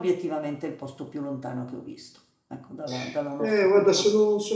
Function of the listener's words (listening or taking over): taking over